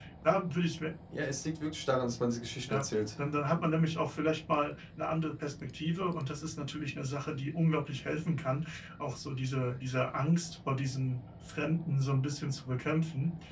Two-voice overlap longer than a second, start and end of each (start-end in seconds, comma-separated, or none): none